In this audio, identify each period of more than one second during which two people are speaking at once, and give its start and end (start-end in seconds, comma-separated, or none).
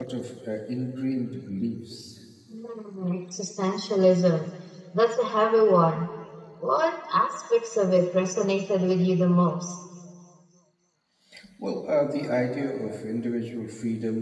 none